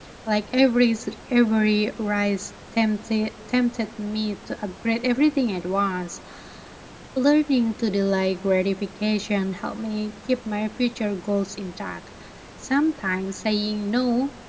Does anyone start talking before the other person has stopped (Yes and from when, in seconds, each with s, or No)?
No